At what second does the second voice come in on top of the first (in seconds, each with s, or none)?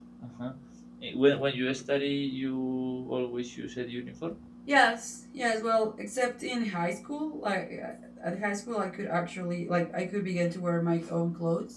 none